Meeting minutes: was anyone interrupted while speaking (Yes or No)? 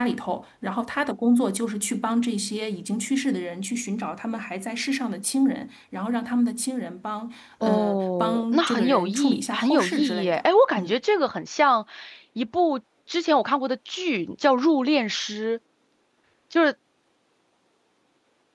Yes